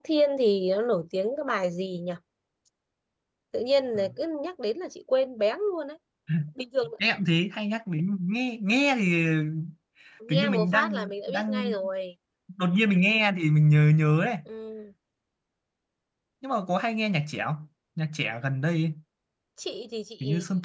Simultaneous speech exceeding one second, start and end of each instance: 10.3-11.7

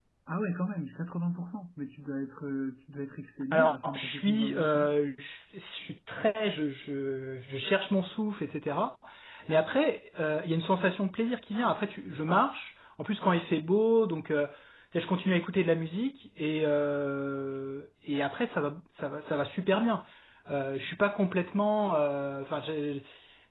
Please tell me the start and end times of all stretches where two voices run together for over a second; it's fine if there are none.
3.5-4.9

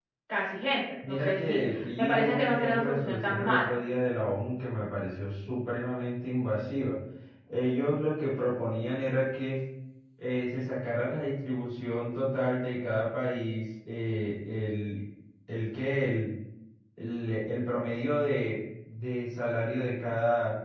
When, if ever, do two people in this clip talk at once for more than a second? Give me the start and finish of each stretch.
1.1-3.8

